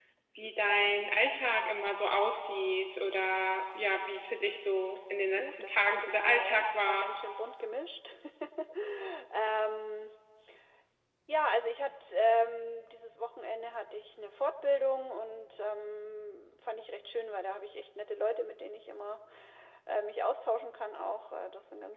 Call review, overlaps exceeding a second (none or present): present